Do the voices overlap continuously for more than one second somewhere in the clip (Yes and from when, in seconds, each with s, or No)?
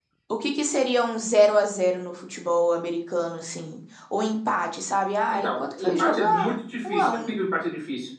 Yes, from 5.3 s